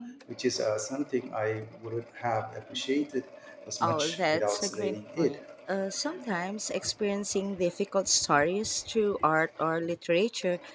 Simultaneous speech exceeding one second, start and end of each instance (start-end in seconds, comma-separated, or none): 3.8-5.4